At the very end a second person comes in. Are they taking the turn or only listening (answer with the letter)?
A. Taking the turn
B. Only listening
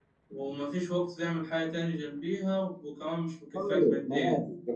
A